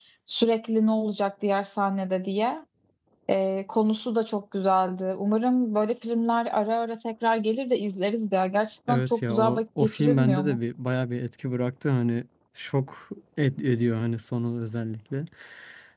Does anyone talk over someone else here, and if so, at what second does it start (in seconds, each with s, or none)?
8.9 s